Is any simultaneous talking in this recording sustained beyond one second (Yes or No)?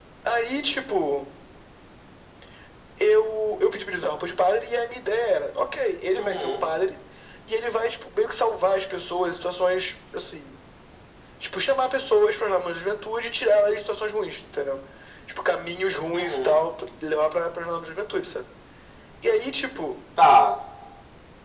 No